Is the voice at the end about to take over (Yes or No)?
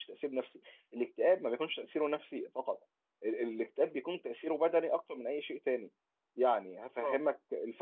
No